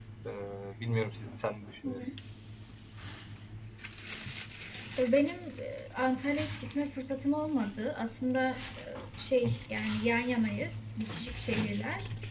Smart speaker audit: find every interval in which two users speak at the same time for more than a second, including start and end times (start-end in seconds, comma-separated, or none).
none